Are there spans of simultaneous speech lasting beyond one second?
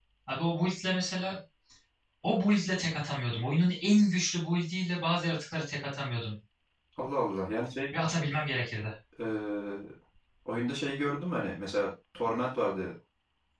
No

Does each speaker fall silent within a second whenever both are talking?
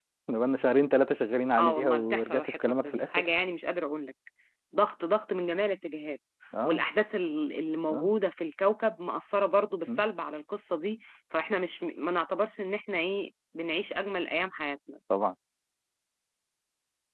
No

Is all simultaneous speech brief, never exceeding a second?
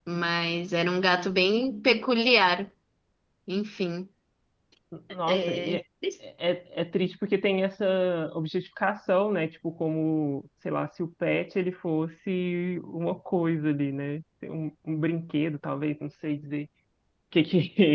Yes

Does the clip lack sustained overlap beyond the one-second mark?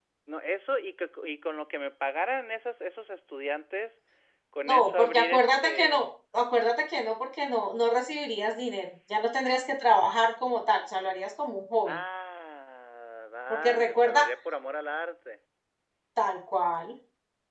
No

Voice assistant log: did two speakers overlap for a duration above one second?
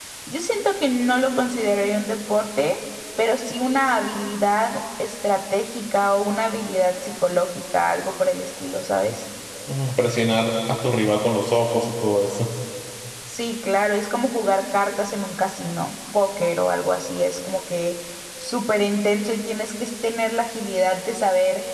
No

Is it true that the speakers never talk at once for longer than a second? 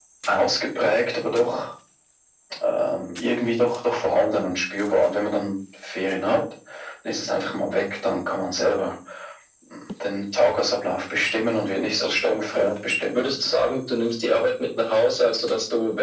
No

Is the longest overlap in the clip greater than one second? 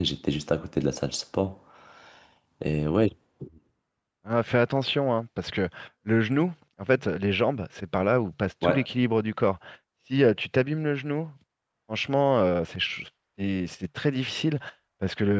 No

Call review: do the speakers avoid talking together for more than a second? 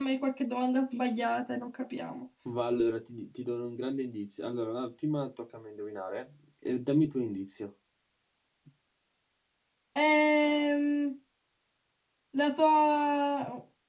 Yes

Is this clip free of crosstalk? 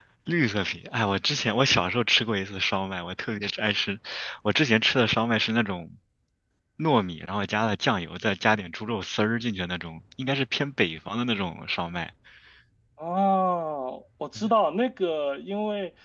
Yes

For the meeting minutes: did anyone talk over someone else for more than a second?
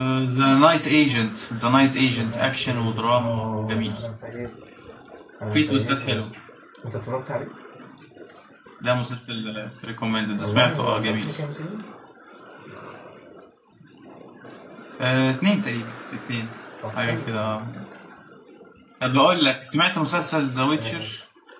Yes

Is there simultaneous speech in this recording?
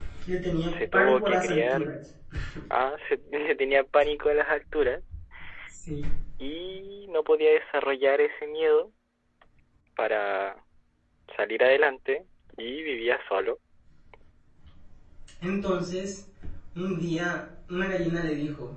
Yes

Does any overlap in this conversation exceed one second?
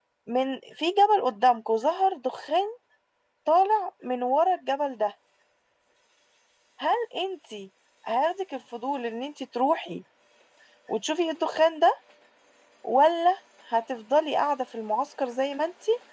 No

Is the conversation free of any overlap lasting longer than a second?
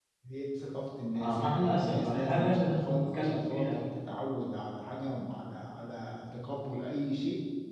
No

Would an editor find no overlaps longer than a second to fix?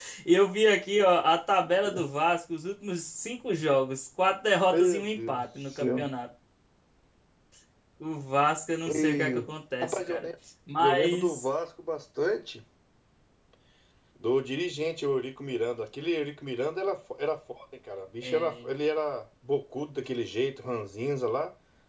No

